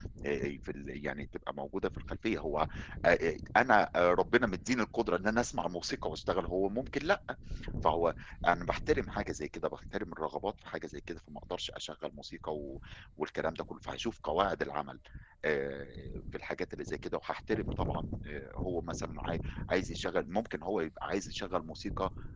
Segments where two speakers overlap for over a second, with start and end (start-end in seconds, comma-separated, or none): none